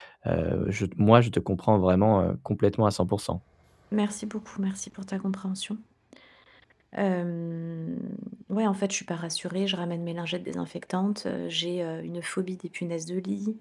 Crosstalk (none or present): none